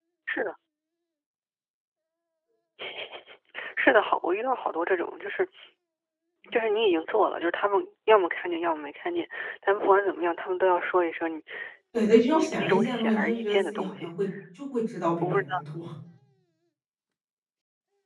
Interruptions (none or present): present